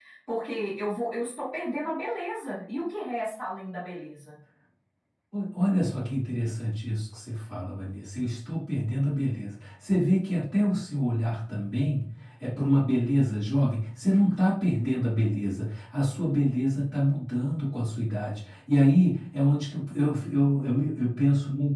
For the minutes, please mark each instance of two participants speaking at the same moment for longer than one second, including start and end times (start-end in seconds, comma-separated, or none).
none